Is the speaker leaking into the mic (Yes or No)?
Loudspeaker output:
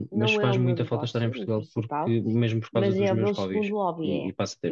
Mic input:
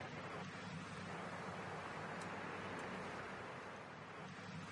No